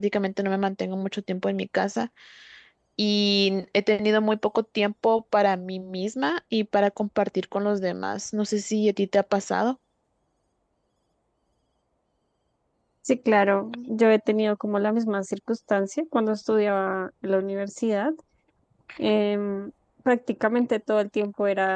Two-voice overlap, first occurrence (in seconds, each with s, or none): none